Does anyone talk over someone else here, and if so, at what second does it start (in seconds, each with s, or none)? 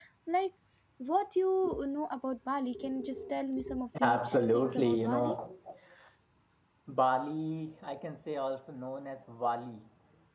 3.9 s